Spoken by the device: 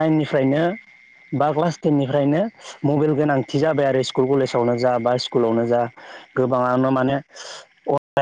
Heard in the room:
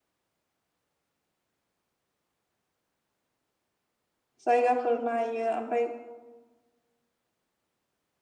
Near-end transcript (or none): जायगाफोर नायो ओमफ्राय